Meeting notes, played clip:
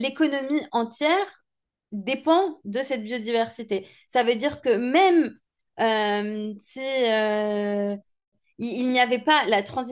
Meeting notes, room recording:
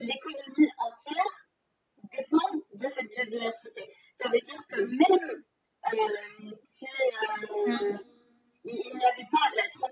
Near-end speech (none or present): present